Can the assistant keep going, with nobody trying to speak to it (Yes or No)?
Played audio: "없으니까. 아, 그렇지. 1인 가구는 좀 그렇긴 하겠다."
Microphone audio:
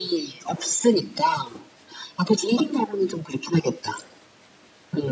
Yes